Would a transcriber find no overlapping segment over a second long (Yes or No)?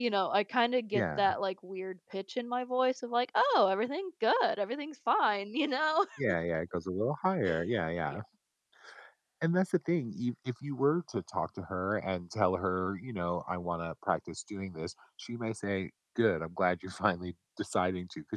Yes